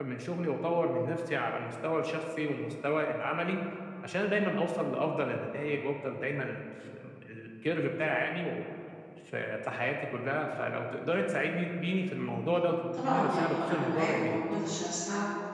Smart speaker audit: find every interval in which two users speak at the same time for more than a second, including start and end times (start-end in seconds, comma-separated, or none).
12.9-14.4